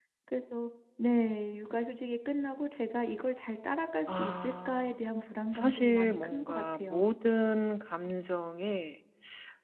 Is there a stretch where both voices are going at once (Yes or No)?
Yes